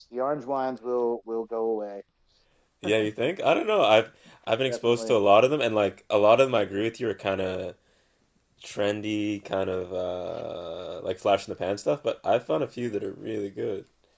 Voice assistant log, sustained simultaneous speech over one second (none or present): none